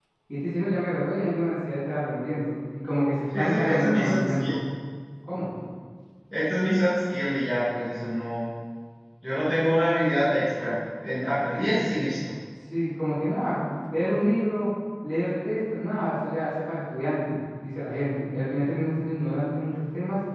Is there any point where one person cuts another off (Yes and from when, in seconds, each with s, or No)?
Yes, from 3.3 s